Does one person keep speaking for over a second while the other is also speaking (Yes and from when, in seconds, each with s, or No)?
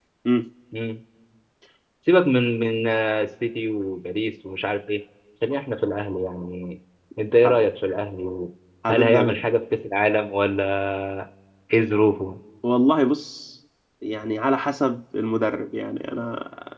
No